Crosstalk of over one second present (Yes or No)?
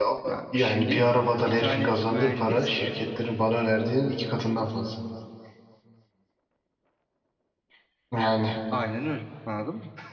Yes